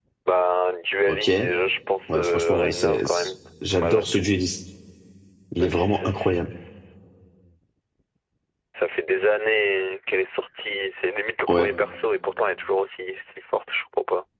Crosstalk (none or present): present